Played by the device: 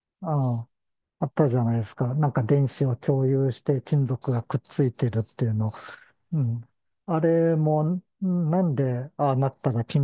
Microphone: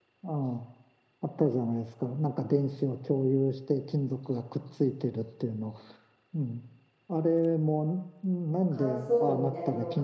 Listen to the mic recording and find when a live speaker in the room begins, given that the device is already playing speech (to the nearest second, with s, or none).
9 s